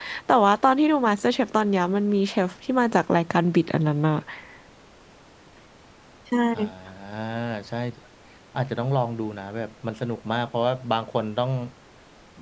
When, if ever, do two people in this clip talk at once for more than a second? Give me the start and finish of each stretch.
none

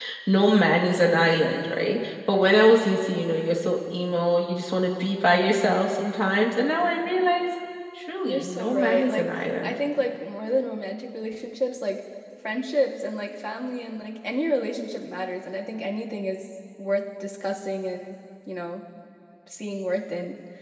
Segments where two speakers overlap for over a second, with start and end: 8.2-9.8

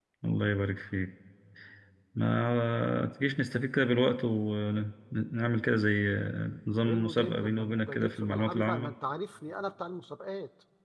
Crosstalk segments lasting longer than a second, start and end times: 6.8-8.9

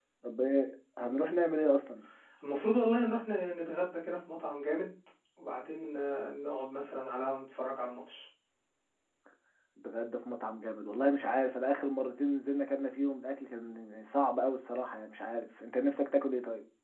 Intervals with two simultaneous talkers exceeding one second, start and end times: none

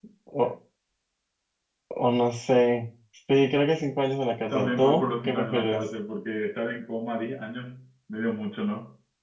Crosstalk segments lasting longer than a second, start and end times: 4.5-5.8

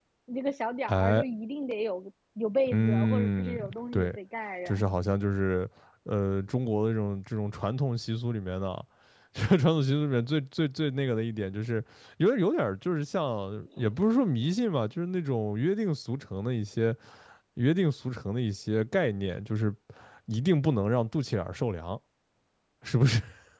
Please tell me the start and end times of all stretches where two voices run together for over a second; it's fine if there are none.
2.7-4.2

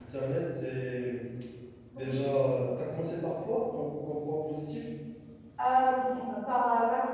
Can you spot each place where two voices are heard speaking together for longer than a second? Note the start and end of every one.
none

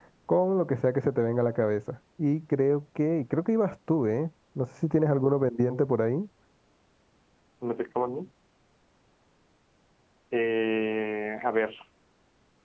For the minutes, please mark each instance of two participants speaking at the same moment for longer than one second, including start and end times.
none

